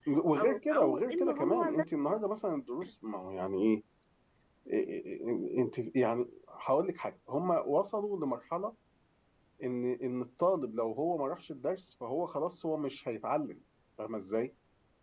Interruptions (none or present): present